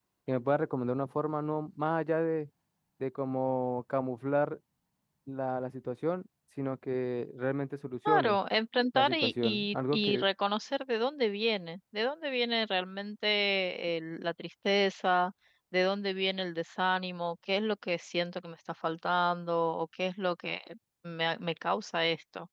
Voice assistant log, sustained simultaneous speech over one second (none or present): present